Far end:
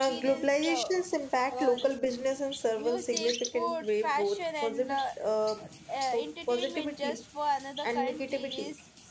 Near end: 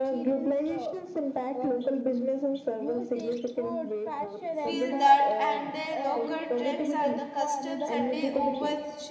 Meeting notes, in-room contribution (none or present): present